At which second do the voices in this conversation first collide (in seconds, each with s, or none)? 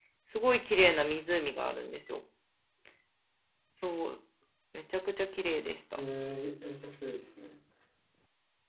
none